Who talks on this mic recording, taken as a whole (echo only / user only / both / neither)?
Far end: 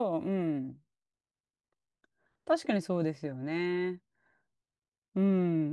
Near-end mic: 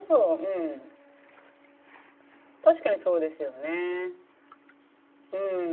echo only